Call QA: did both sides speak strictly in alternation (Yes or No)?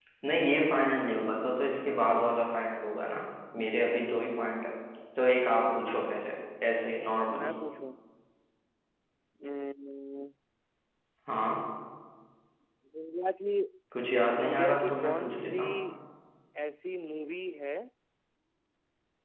No